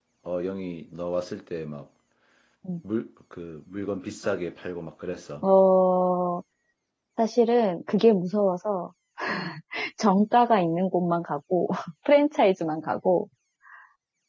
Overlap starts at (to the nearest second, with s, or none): none